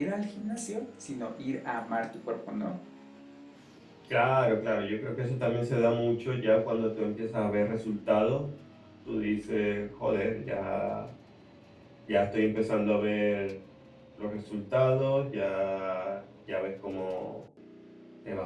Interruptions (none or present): none